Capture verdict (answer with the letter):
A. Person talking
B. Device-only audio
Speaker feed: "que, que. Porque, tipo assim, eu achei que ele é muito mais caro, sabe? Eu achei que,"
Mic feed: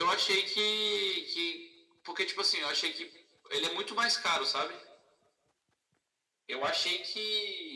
B